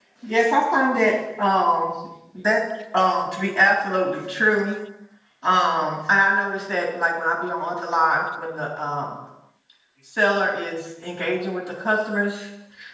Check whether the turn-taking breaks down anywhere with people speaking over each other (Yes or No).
No